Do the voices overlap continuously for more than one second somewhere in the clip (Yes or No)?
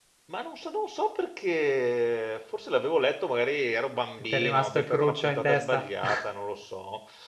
Yes